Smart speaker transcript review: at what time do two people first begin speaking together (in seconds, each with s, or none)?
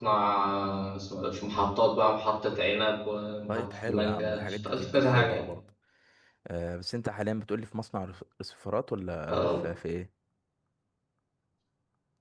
3.5 s